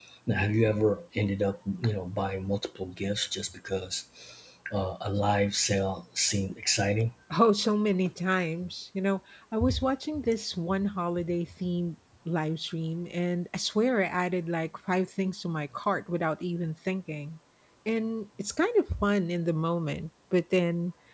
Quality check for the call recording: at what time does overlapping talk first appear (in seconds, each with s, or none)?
none